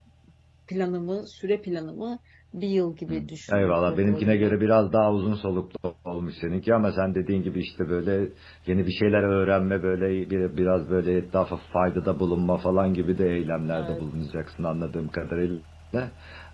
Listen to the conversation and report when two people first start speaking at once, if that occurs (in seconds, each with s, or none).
3.1 s